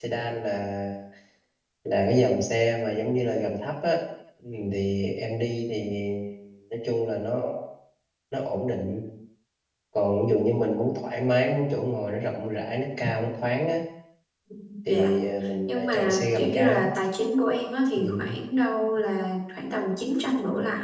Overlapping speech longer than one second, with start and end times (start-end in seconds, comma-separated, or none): 15.7-16.9